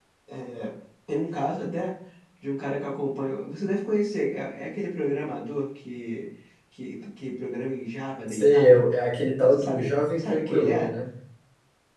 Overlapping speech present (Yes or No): Yes